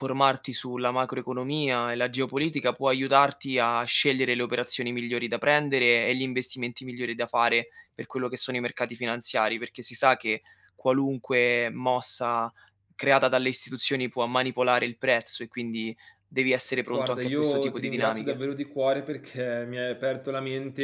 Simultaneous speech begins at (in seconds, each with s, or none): 16.9 s